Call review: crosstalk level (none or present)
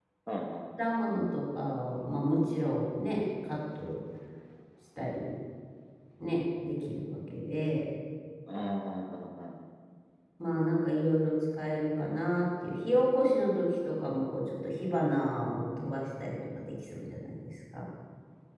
none